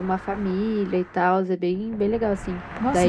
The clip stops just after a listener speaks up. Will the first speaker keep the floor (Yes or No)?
No